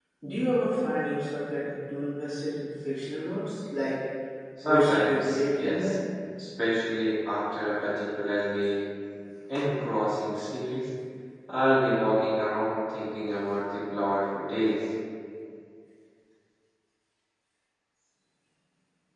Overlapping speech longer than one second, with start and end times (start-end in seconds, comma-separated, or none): 4.6-5.9